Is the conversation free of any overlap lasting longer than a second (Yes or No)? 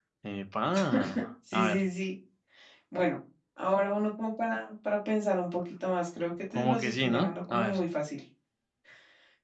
No